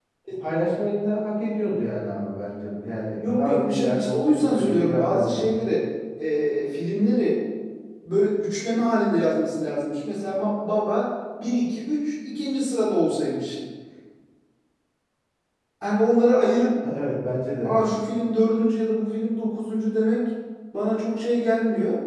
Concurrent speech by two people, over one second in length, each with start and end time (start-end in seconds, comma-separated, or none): 3.2-5.4